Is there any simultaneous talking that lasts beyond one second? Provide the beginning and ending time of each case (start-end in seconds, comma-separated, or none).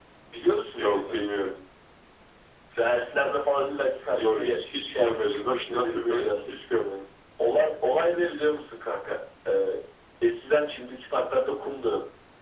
4.2-6.5